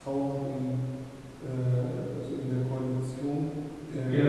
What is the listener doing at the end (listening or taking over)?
taking over